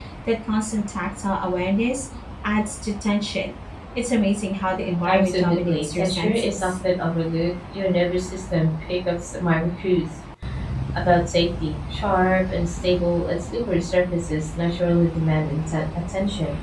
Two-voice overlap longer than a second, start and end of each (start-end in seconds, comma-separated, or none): 5.0-6.7